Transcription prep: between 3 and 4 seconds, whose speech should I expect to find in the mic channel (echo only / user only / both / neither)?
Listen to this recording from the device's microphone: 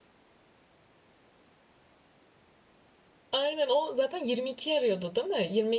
user only